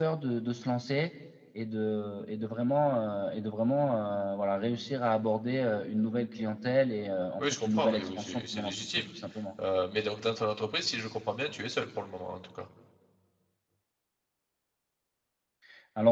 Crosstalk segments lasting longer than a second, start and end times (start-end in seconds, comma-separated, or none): 7.4-9.0